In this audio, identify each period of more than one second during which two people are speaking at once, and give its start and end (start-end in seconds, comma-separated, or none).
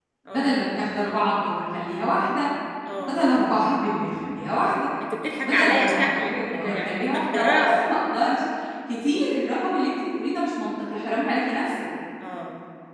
5.4-7.9